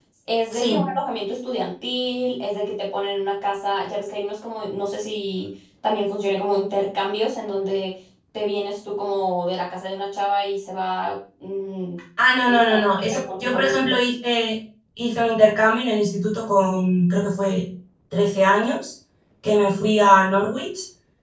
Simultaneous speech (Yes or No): Yes